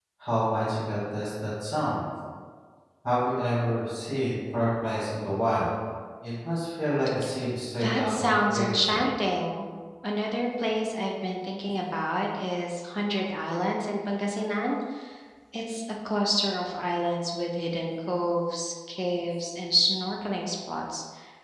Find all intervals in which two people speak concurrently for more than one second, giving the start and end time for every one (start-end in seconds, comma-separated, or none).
7.8-9.1